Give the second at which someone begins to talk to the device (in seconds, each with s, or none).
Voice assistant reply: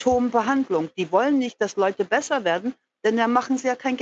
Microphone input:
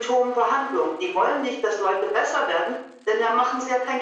none